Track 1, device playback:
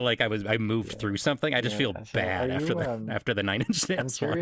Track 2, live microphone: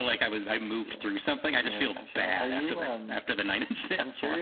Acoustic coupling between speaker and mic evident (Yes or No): Yes